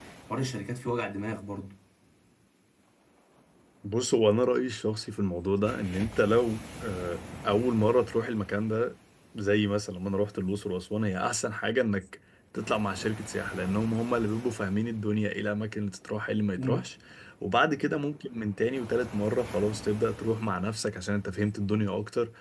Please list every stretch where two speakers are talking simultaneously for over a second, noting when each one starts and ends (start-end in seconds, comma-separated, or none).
none